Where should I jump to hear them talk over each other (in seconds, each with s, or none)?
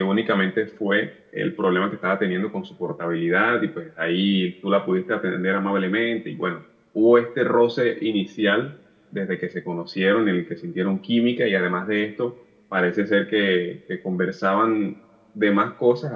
none